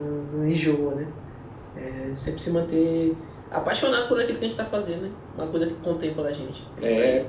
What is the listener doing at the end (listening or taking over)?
taking over